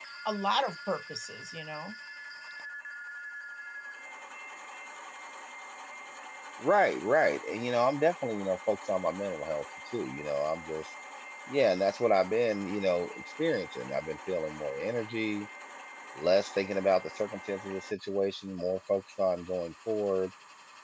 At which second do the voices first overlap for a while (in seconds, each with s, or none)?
none